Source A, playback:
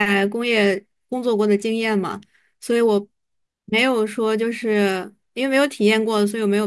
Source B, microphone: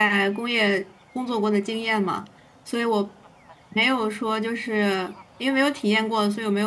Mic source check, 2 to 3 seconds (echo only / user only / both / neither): echo only